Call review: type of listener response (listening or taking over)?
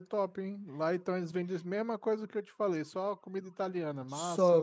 taking over